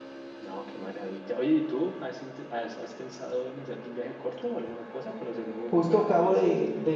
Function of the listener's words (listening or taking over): taking over